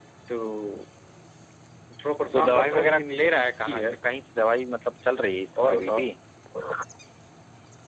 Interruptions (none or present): present